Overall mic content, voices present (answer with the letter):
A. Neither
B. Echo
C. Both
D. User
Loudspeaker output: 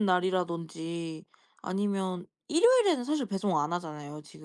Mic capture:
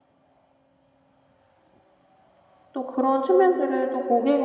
D